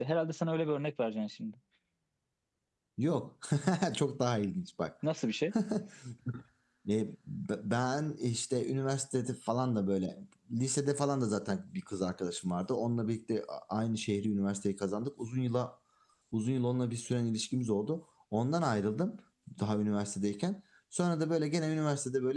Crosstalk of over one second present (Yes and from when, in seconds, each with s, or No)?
No